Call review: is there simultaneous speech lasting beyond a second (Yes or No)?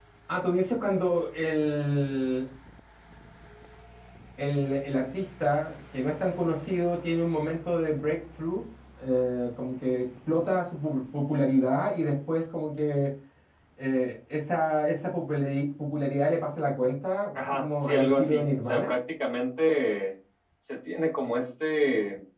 Yes